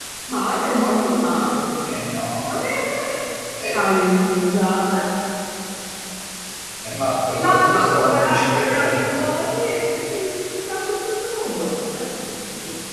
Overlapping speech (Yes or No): Yes